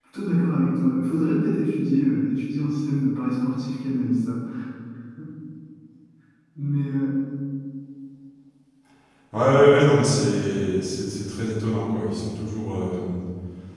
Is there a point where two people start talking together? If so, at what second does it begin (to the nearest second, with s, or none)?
none